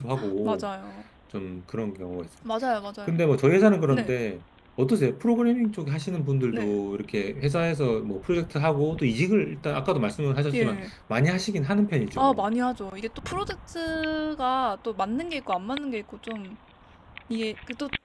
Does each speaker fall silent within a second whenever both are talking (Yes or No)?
Yes